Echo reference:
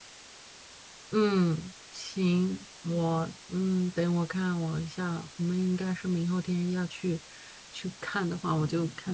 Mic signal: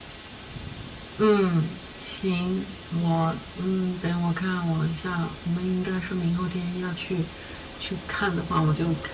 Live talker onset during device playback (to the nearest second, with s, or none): none